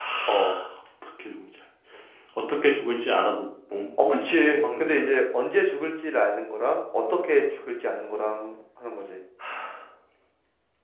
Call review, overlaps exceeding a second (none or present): present